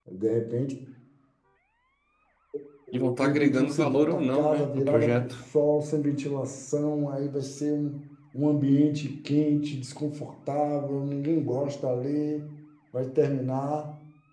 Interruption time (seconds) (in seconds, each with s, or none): 3.1 s